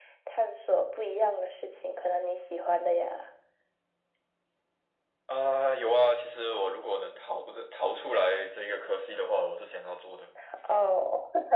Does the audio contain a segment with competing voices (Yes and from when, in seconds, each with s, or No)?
No